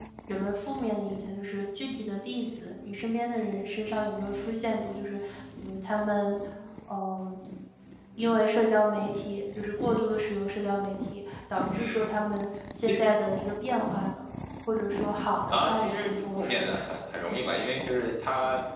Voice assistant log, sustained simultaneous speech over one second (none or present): present